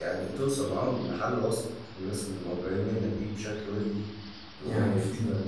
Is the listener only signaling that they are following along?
No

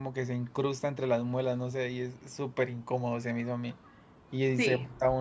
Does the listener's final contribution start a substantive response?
No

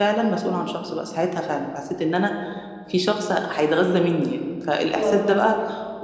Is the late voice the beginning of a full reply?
No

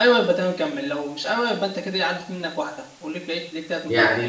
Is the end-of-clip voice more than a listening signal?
Yes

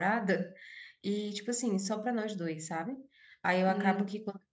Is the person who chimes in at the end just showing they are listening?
Yes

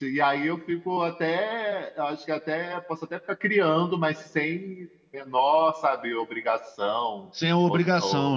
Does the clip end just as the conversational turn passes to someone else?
Yes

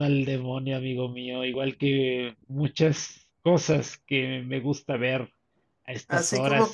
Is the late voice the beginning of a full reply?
Yes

